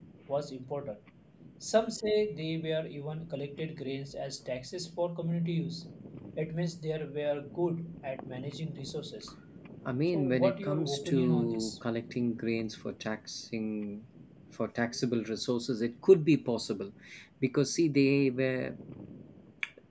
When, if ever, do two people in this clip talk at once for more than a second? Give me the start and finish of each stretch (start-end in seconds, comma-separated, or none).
10.1-11.7